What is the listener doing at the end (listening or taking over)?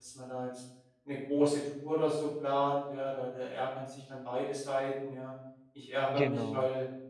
listening